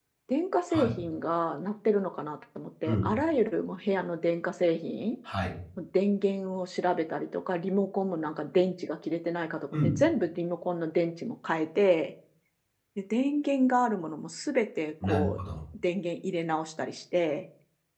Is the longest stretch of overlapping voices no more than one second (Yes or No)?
Yes